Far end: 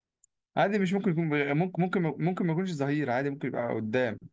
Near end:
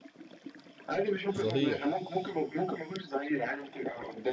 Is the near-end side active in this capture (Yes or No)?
Yes